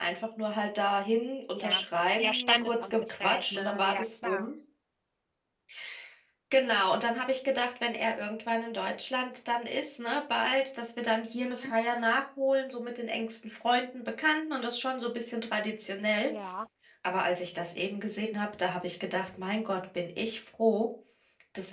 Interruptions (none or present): present